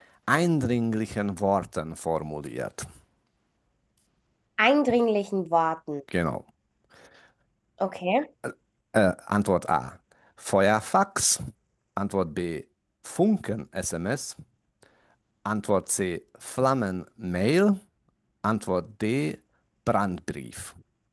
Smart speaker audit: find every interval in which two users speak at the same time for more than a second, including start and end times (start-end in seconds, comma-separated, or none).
none